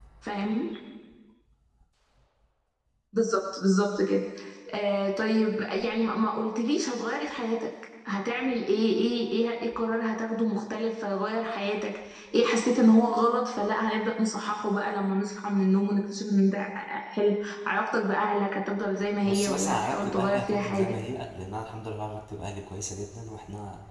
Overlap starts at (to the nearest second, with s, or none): 19 s